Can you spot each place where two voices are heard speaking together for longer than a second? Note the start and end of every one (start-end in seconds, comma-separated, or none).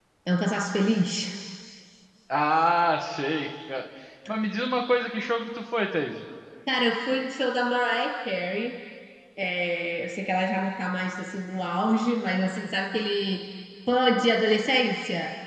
none